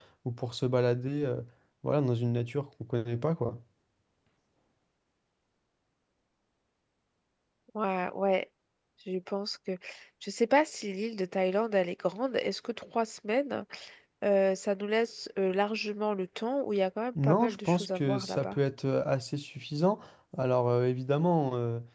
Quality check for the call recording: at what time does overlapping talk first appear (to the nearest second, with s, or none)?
17 s